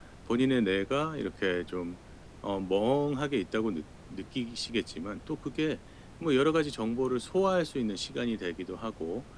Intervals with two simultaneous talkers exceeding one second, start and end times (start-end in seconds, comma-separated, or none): none